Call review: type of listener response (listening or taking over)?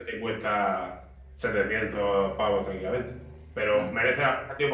listening